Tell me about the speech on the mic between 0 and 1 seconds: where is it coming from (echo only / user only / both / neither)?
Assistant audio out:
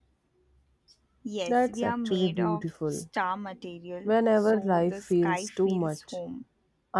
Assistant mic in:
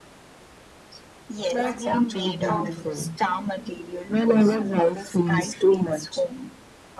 neither